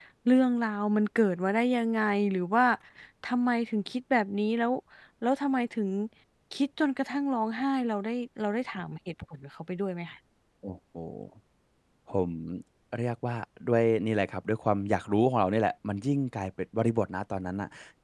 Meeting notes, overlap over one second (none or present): none